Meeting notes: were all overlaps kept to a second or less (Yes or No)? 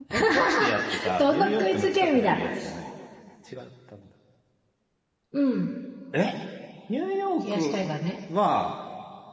No